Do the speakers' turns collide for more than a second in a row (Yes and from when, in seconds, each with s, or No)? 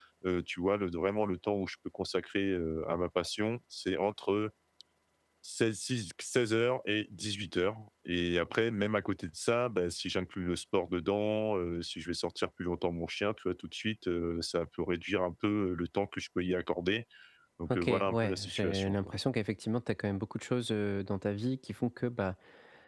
Yes, from 17.7 s